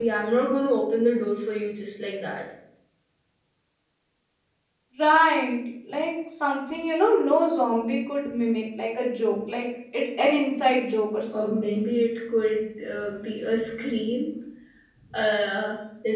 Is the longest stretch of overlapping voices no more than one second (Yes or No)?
Yes